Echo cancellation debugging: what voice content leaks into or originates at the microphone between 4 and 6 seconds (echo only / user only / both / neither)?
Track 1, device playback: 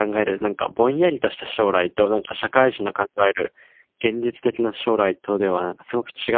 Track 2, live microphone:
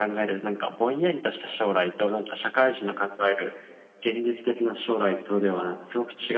echo only